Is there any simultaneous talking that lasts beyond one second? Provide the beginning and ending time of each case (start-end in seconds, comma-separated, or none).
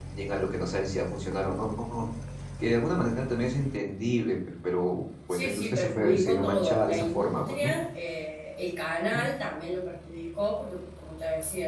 5.3-7.7